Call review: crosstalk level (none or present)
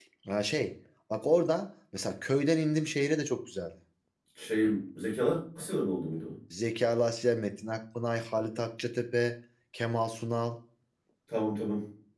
none